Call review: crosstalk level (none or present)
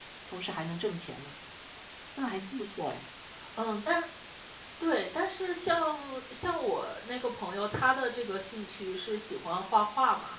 none